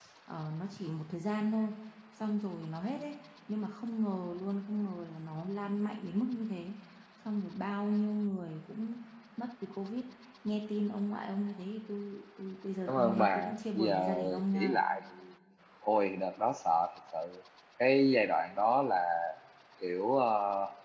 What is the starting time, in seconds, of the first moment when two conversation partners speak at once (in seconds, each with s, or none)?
12.9 s